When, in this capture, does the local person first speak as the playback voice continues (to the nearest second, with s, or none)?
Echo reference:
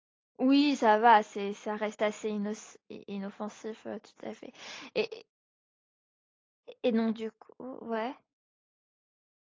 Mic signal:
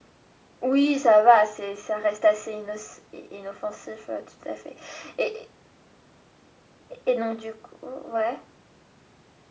none